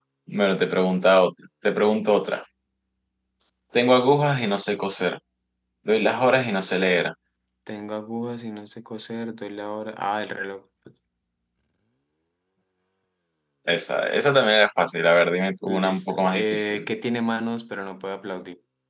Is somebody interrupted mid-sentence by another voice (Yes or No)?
Yes